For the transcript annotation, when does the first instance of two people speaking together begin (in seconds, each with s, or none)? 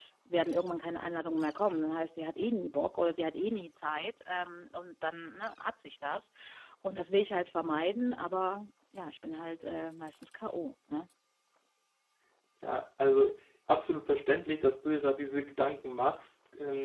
none